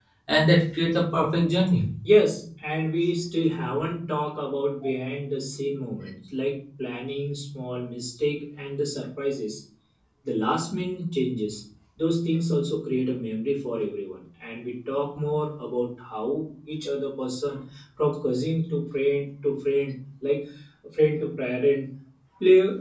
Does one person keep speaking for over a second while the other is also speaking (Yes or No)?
No